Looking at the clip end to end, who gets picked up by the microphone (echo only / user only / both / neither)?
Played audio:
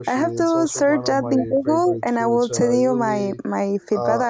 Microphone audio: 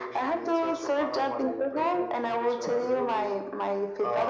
echo only